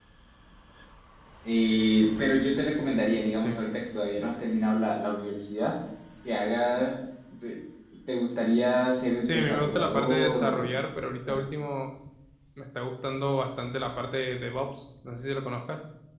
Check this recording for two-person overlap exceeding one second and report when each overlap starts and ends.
9.2-10.7

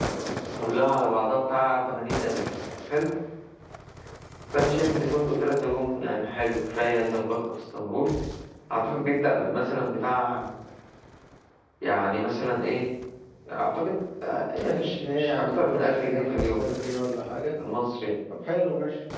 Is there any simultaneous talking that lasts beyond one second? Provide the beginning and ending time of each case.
14.6-16.6

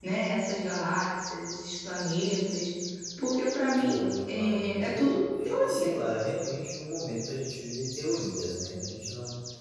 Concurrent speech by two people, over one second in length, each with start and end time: 4.3-6.0

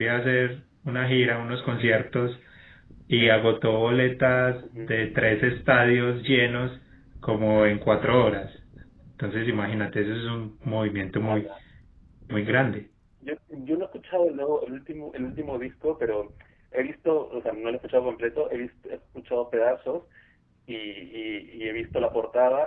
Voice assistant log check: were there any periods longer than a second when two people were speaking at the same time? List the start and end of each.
none

